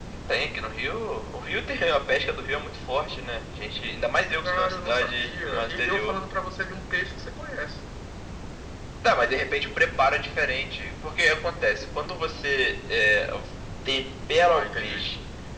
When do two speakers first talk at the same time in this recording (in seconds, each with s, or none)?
4.4 s